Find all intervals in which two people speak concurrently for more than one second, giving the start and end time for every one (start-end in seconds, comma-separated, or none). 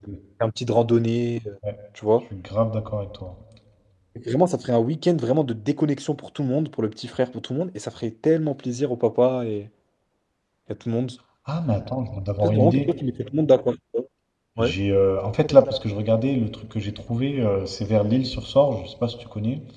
none